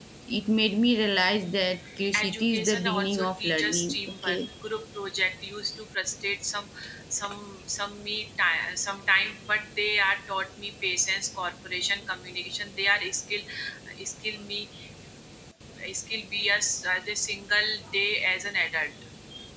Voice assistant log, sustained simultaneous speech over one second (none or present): present